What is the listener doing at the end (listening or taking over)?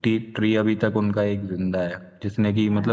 listening